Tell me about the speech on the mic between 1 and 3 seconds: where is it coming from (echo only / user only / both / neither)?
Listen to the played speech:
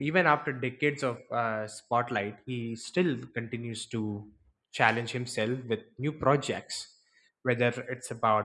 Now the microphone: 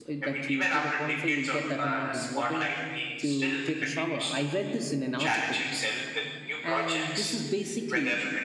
both